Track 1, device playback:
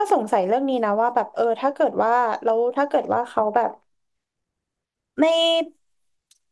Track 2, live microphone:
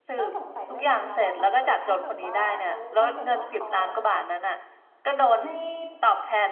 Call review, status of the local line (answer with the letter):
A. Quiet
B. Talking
B